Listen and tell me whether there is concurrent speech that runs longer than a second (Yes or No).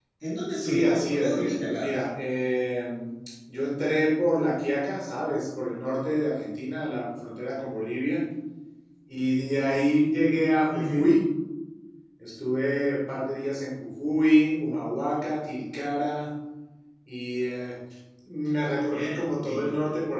Yes